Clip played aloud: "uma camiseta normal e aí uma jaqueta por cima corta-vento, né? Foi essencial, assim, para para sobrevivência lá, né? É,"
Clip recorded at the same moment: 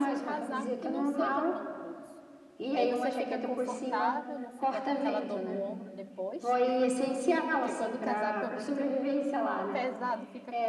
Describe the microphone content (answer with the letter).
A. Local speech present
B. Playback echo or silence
A